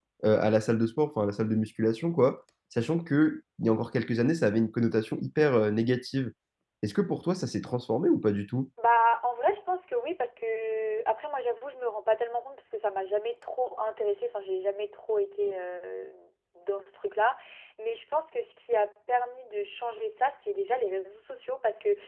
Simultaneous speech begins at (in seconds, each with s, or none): none